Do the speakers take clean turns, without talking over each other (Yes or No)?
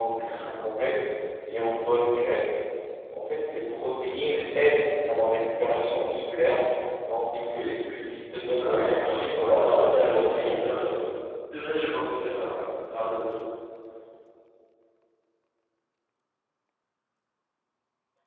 No